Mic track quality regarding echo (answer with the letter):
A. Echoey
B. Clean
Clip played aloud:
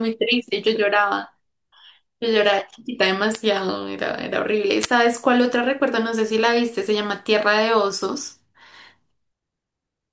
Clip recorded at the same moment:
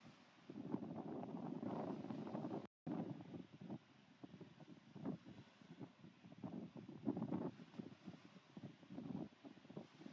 B